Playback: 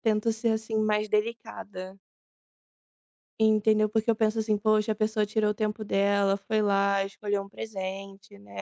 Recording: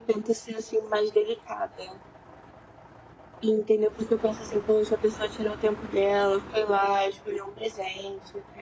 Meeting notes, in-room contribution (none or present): none